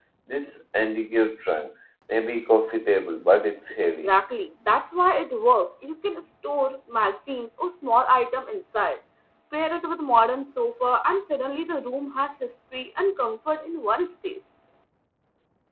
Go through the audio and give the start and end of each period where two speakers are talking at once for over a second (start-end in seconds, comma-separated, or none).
none